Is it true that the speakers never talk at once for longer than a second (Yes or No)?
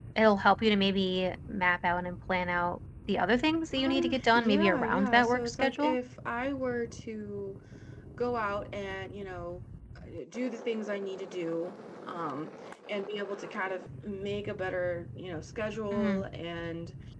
No